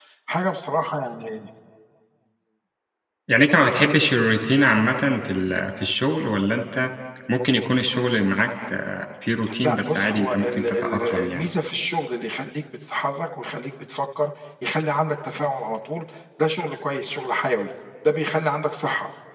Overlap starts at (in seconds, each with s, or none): 9.6 s